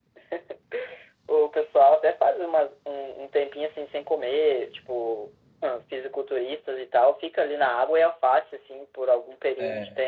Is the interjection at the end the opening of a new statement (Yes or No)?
No